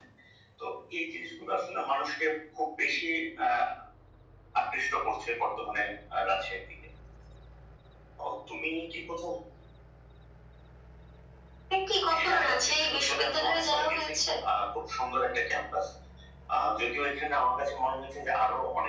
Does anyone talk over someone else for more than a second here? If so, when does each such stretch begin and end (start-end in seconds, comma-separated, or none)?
12.2-14.1